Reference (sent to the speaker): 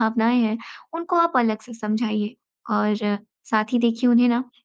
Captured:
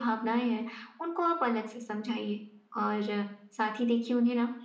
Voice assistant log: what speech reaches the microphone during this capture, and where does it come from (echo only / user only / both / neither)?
echo only